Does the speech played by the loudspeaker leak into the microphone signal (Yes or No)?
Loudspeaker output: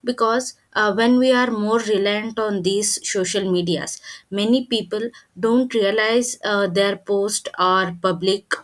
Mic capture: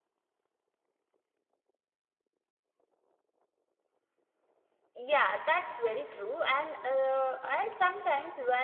No